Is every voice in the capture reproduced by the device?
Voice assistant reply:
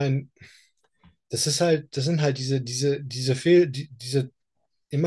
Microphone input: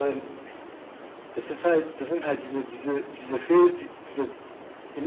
Yes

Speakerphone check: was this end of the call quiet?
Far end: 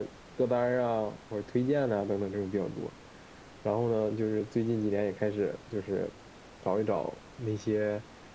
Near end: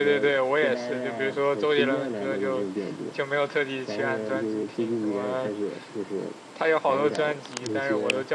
No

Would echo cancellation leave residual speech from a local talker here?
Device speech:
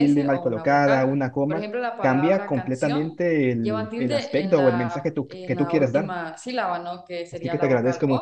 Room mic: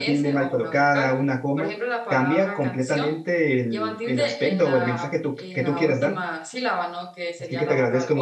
No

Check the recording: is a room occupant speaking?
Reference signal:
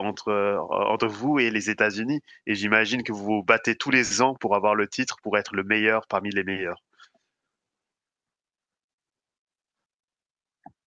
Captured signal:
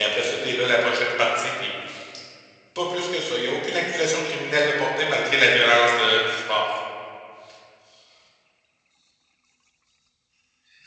Yes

